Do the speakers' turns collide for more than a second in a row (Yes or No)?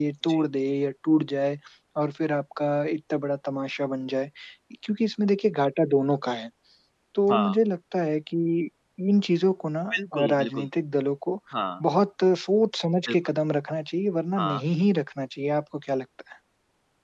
No